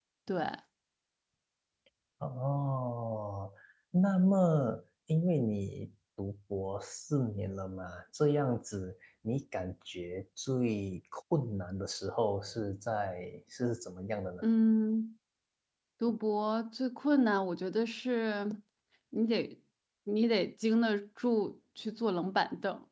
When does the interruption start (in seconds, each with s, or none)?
none